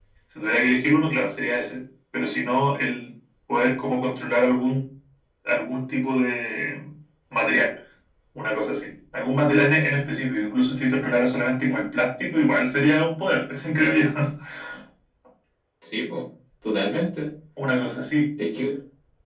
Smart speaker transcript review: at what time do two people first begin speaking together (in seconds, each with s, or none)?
none